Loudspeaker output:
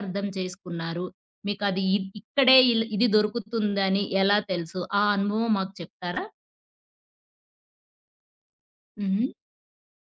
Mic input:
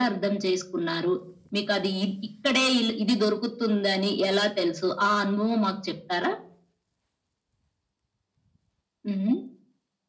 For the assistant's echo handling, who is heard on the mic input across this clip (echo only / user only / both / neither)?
echo only